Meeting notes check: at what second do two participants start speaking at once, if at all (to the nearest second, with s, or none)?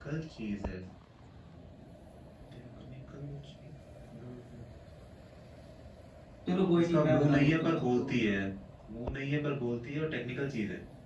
7 s